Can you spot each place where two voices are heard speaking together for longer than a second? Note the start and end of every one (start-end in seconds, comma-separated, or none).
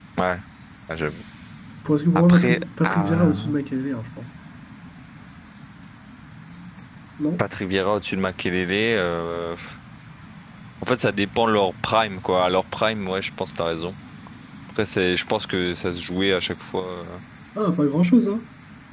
2.2-3.5